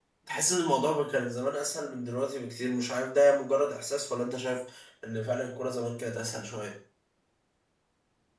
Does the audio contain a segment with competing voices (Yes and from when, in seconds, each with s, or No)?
No